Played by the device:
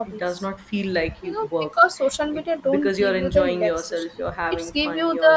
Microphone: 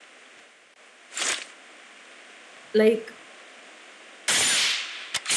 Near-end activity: present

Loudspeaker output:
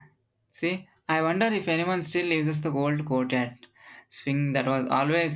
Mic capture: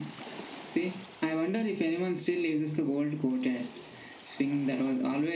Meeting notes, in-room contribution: none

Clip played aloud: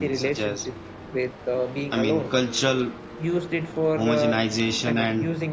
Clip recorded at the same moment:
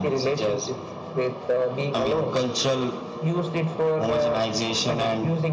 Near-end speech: none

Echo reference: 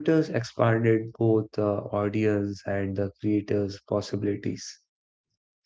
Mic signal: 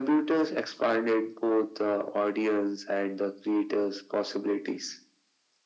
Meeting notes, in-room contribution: none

